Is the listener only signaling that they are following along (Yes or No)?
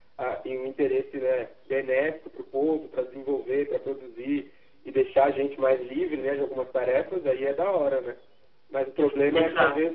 Yes